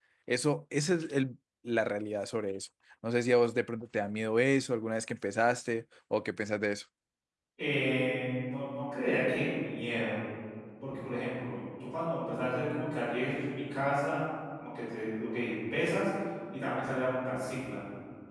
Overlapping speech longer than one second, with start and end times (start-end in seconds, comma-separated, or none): none